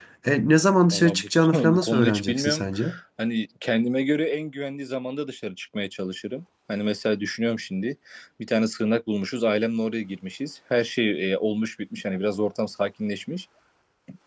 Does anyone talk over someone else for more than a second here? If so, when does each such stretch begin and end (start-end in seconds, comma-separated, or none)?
0.9-2.7